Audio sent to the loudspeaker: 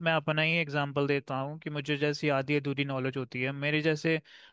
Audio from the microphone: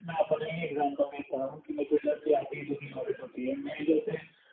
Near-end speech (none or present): none